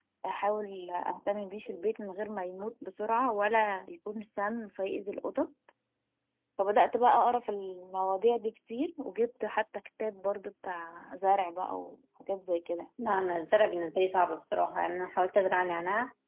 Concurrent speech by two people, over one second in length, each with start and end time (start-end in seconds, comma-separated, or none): none